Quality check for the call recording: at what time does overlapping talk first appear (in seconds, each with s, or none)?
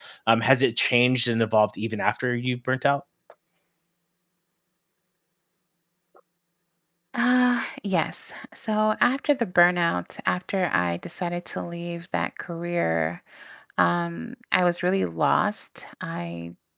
none